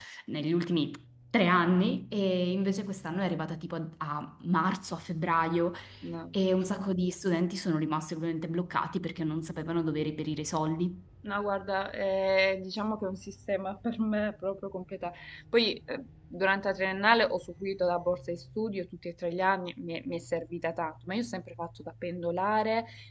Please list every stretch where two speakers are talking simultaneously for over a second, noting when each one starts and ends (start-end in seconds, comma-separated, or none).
none